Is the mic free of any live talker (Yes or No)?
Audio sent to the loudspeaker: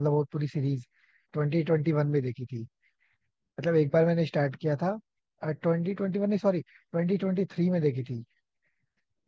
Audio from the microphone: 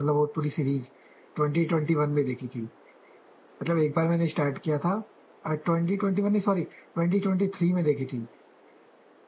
Yes